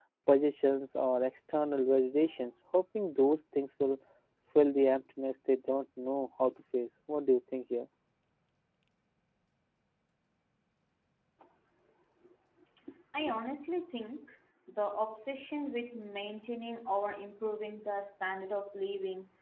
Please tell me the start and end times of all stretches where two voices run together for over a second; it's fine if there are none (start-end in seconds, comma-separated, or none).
none